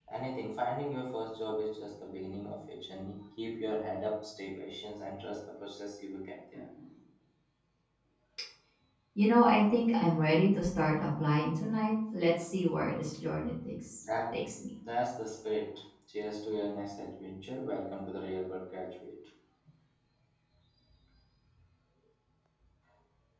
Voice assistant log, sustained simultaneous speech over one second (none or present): none